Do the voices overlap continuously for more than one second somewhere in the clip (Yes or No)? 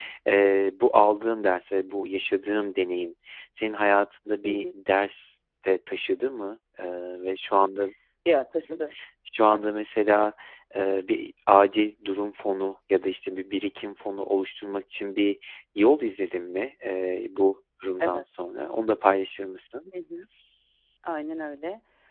No